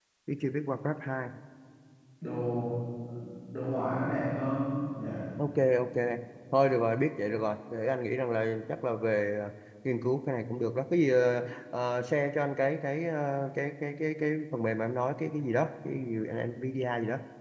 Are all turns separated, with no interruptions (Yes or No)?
Yes